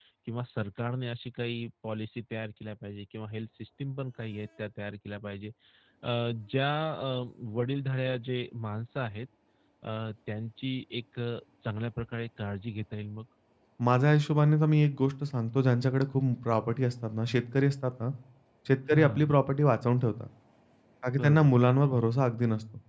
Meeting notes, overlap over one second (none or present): none